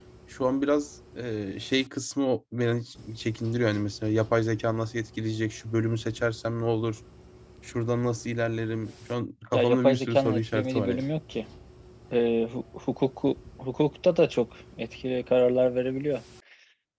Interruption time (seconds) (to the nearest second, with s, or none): 10 s